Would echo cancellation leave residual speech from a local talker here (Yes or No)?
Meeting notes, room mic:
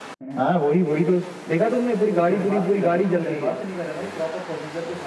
Yes